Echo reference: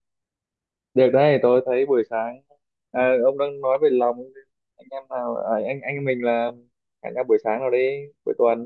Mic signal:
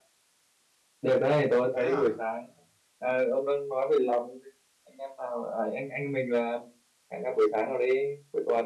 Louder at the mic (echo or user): echo